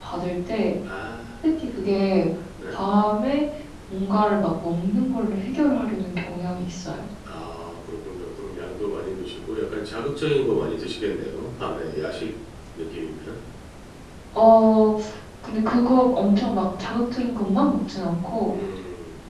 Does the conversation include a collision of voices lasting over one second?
No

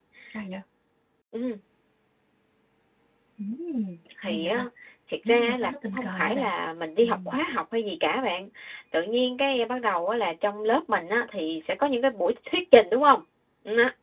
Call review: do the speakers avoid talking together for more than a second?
No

